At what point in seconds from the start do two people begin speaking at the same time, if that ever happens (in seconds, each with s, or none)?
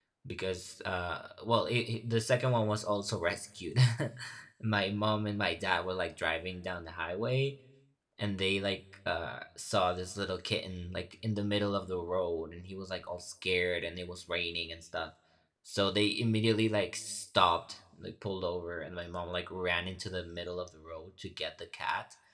none